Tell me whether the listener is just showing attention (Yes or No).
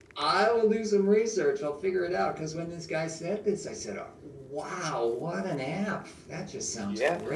No